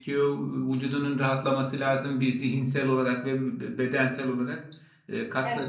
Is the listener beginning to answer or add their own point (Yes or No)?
No